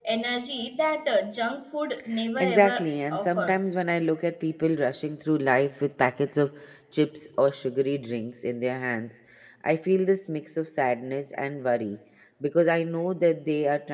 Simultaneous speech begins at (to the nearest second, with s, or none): 2 s